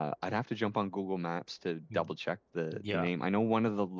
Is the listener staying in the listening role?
Yes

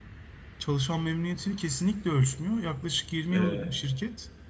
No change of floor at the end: Yes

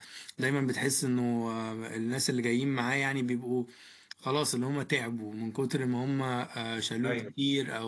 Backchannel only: Yes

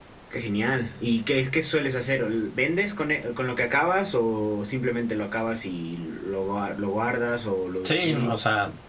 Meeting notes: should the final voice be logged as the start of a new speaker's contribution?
Yes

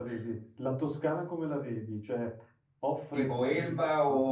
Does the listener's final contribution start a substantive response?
Yes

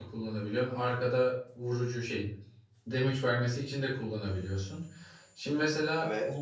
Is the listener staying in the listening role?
Yes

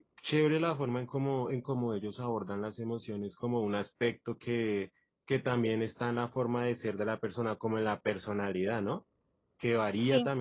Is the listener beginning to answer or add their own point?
No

